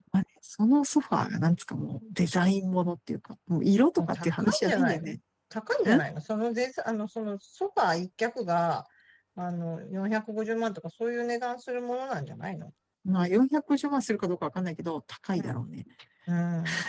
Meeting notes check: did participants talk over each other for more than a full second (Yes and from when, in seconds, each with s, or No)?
Yes, from 4.0 s